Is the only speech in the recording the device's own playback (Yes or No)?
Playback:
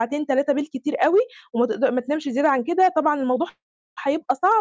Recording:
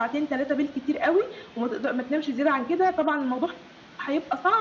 Yes